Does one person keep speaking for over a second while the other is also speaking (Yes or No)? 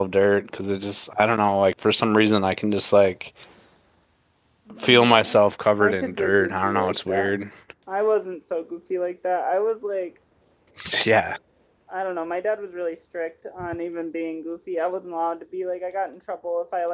Yes